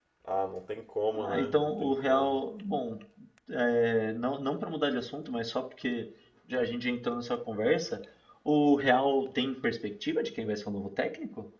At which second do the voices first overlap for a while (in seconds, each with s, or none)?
1.1 s